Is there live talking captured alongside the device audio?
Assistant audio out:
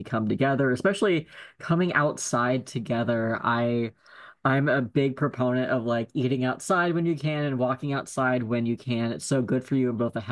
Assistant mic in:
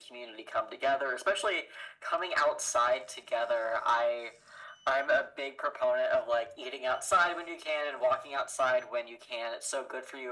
No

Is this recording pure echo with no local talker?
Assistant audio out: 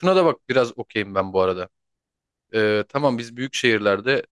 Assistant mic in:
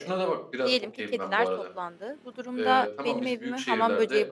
No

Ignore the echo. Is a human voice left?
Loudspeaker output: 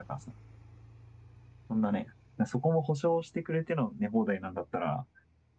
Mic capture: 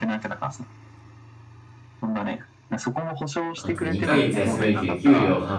Yes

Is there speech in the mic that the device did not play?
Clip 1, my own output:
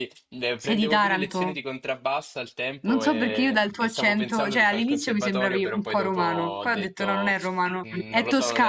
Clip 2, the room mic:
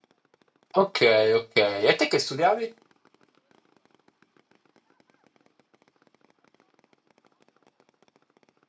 Yes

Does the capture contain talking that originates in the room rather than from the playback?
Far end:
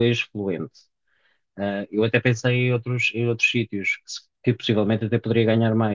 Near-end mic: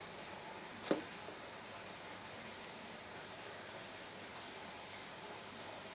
No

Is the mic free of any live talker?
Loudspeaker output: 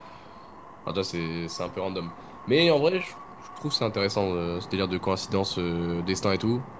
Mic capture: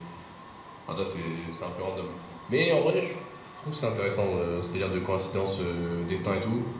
Yes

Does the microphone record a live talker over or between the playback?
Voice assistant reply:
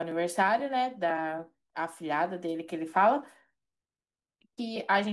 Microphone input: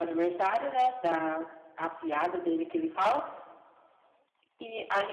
No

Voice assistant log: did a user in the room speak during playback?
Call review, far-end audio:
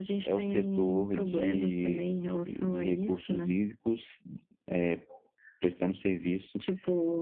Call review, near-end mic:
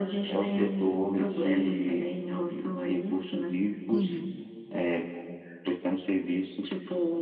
Yes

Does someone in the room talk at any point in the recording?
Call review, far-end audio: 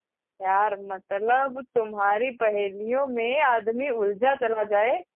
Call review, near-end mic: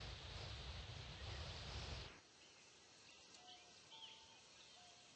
No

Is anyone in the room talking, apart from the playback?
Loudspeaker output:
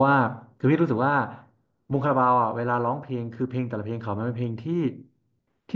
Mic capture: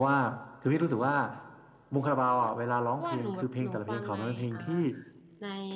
Yes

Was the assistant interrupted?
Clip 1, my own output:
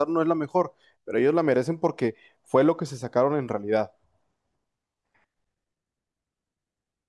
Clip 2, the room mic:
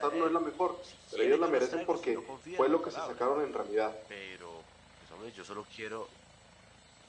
Yes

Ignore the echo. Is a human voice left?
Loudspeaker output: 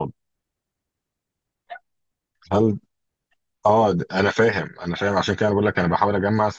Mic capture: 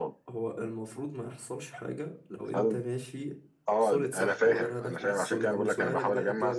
Yes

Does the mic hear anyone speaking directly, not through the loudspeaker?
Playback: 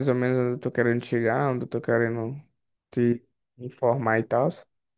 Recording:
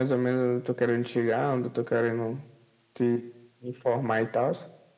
No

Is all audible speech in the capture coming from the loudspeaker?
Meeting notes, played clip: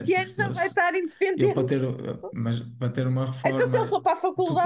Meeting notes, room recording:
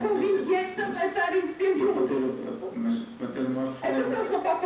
No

